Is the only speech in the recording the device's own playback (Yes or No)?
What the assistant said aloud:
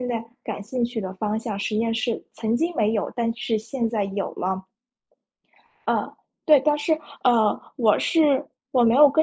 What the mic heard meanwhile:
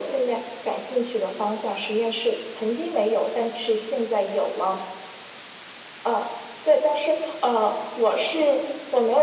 Yes